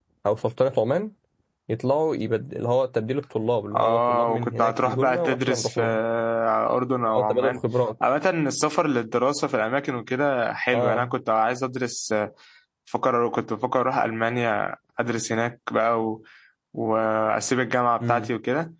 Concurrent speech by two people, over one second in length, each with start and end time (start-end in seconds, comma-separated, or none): 3.7-5.8